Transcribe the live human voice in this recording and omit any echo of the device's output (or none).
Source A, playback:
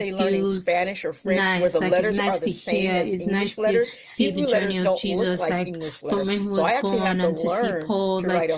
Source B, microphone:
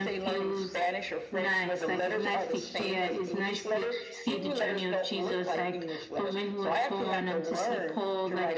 none